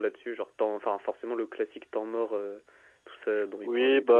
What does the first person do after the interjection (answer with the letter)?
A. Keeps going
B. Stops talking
B